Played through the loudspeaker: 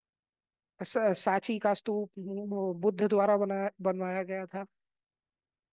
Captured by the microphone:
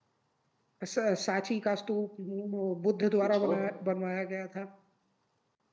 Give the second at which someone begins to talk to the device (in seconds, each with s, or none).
3.2 s